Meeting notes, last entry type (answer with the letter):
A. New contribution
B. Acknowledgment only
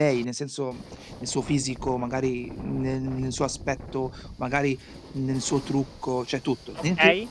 A